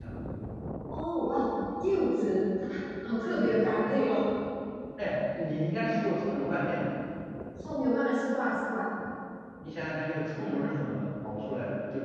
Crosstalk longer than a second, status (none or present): none